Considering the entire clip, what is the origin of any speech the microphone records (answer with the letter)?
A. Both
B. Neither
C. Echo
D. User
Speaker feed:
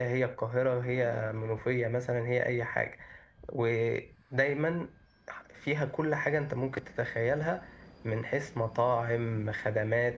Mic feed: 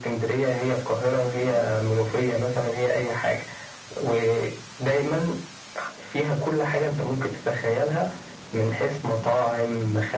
C